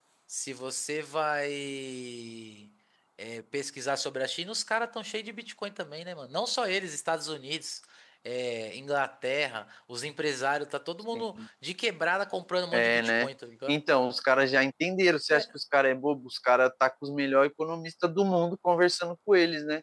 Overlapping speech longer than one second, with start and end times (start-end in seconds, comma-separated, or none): none